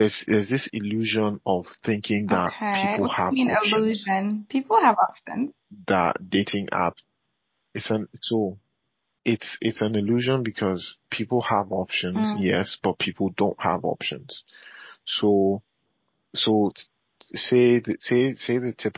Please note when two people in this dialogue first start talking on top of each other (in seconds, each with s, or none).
2.3 s